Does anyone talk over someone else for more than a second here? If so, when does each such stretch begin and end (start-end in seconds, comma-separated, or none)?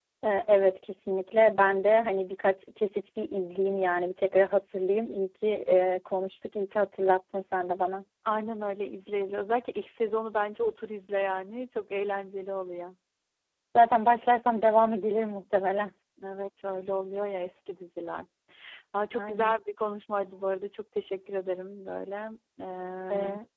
none